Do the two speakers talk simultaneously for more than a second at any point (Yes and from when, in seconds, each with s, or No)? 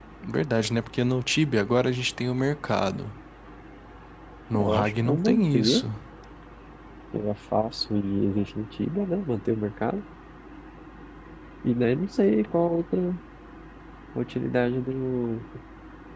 Yes, from 4.6 s